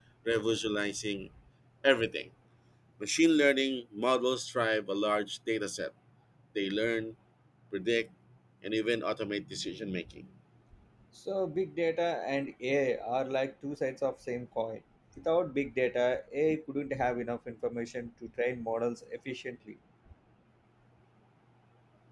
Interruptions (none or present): none